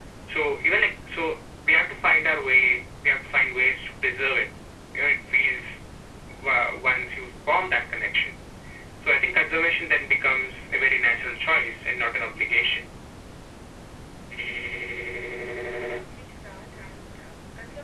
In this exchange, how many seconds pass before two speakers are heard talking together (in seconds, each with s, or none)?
none